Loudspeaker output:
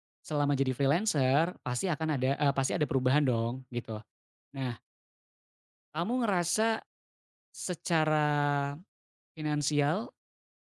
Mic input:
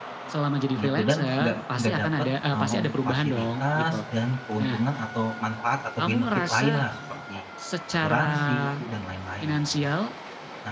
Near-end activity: present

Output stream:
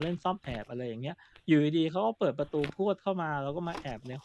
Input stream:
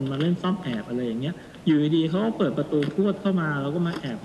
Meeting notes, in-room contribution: none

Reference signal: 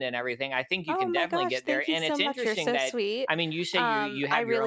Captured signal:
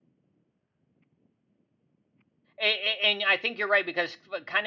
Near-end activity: present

